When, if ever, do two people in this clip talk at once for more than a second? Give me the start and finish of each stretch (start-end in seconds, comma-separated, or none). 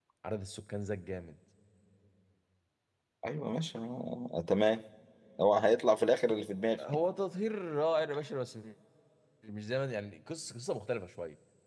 none